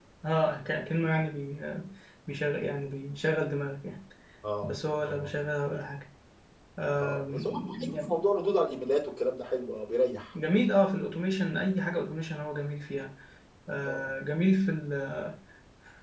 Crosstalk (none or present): present